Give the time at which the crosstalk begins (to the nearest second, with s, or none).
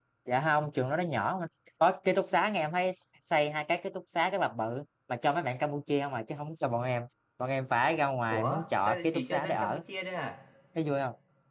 8 s